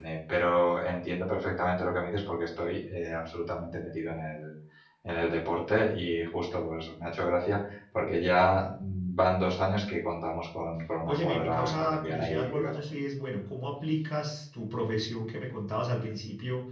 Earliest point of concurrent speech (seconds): 11.1 s

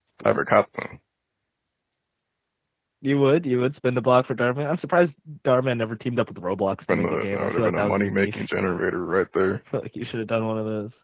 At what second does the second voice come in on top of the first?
6.9 s

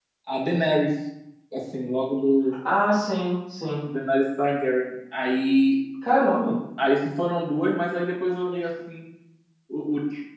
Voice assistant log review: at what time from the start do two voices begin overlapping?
none

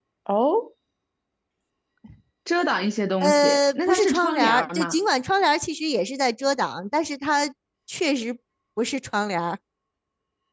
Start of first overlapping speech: 3.2 s

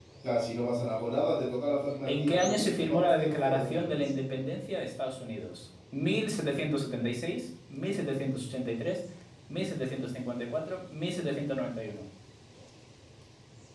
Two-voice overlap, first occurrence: 2.0 s

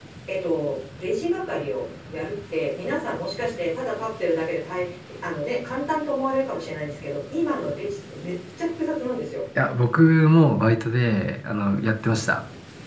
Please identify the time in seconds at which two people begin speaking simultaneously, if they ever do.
none

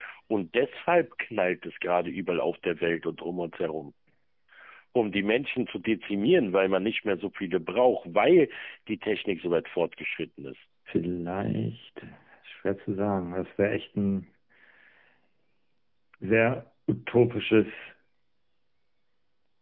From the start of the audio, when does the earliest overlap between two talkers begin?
none

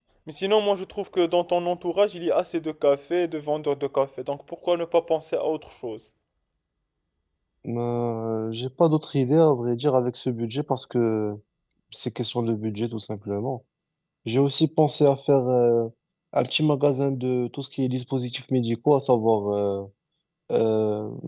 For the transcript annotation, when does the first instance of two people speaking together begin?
none

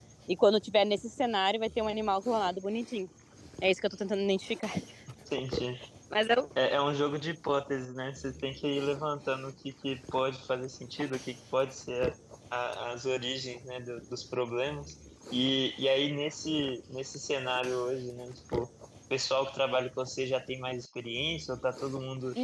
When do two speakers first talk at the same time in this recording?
none

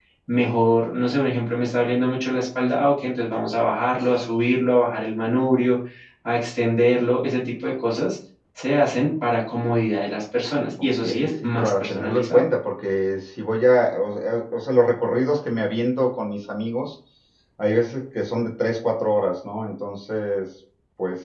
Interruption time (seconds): 11.0 s

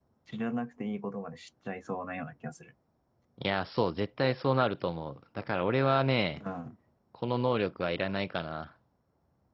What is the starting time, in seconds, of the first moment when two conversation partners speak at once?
none

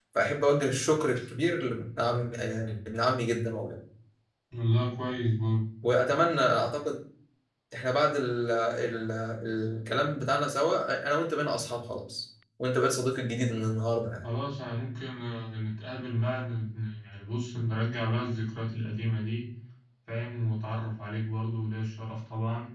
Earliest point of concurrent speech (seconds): none

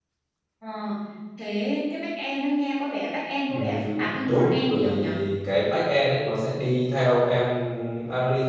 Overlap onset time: 3.5 s

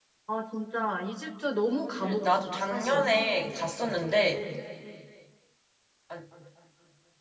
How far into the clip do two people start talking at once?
1.8 s

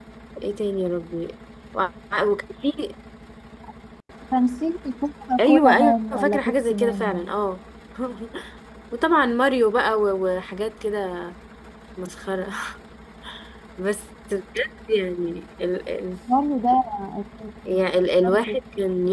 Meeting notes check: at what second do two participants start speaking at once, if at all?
5.4 s

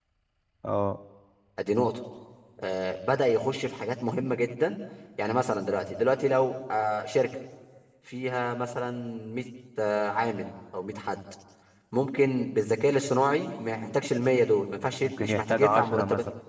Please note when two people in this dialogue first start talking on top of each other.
15.0 s

